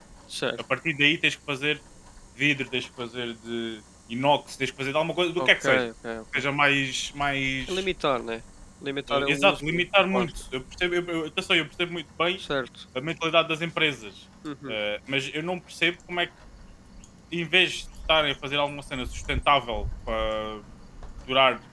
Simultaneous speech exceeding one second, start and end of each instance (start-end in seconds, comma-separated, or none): 9.1-10.3